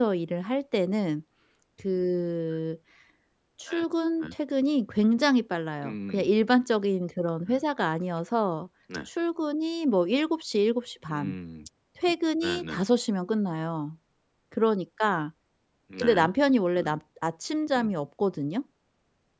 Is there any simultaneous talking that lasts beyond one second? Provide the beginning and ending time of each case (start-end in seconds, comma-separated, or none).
none